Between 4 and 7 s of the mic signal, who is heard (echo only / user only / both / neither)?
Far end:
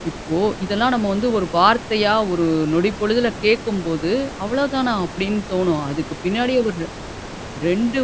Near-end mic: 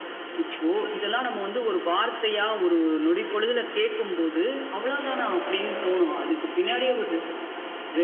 echo only